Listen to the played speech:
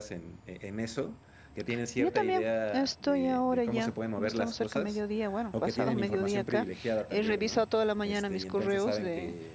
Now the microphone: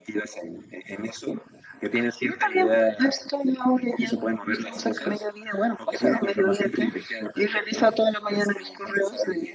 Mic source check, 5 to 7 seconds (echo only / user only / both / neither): echo only